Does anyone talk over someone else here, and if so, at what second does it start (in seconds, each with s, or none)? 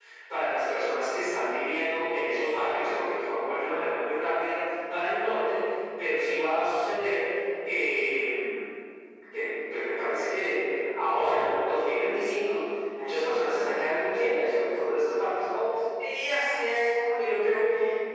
none